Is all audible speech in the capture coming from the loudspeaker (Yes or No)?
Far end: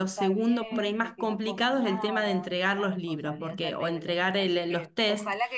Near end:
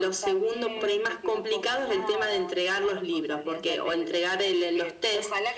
Yes